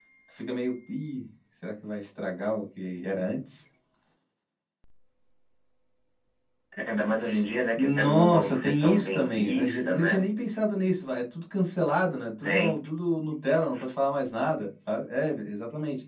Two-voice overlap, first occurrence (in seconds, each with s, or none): 7.8 s